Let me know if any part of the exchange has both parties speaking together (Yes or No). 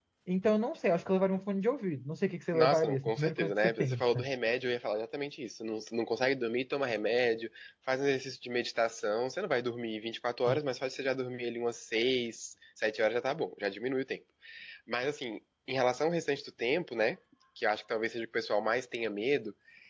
Yes